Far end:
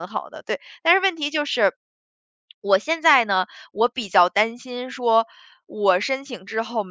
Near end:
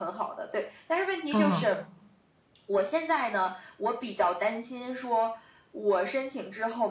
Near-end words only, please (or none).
哦，